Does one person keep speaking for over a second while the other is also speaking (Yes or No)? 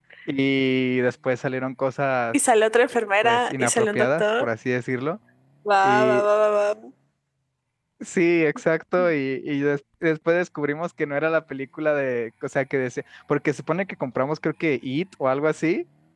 Yes